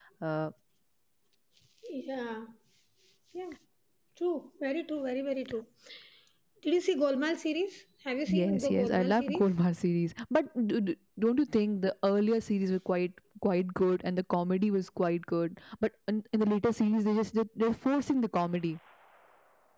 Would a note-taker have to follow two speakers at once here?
Yes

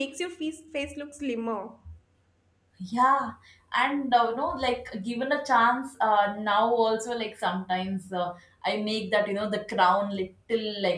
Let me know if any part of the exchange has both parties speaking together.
No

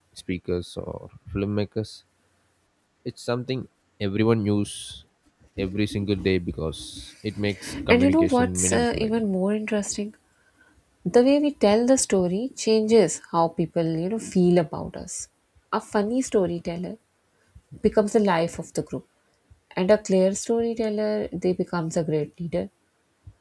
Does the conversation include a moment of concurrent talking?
Yes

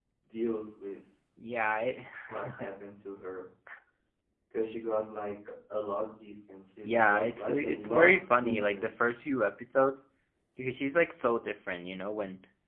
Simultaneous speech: Yes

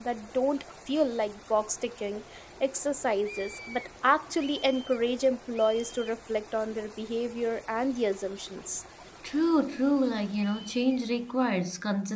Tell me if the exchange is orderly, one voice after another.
Yes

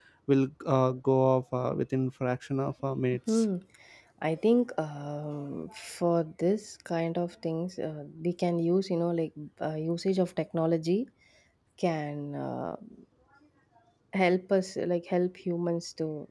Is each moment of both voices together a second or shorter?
Yes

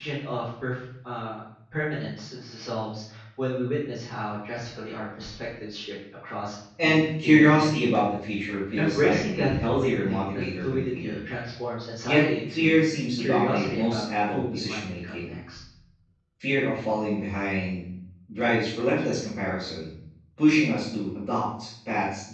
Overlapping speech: Yes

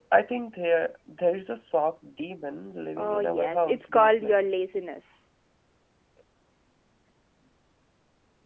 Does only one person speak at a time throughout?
No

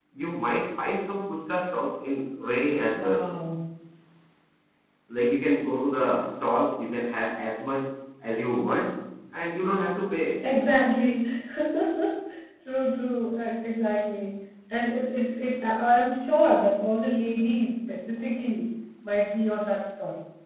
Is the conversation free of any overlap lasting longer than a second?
Yes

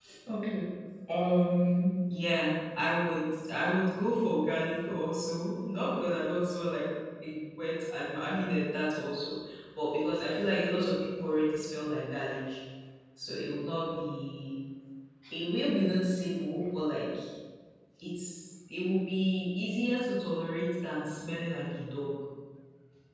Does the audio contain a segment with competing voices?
No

